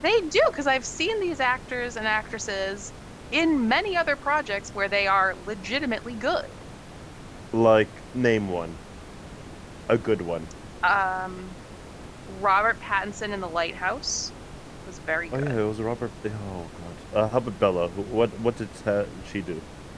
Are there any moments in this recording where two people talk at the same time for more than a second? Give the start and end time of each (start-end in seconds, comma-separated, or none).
none